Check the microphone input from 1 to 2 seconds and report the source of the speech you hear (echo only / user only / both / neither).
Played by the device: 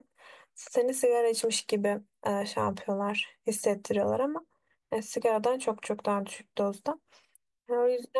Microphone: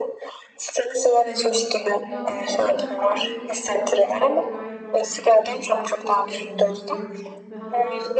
both